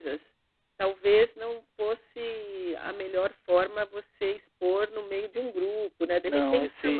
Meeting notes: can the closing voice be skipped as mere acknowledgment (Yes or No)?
No